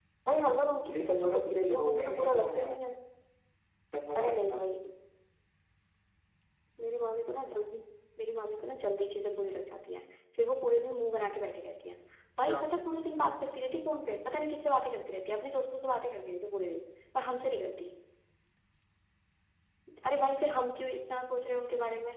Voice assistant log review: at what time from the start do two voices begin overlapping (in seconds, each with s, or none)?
1.0 s